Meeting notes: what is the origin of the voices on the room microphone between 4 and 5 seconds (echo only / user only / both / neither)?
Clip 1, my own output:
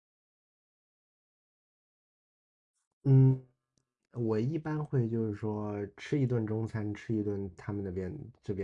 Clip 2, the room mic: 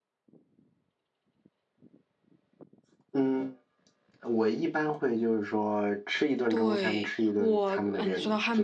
echo only